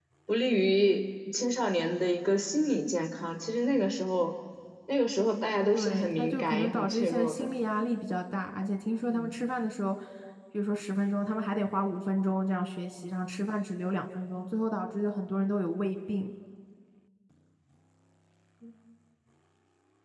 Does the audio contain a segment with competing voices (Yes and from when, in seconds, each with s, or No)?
Yes, from 5.7 s